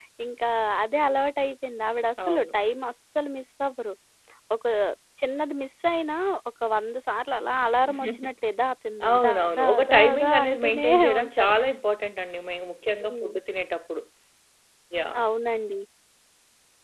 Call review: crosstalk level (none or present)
present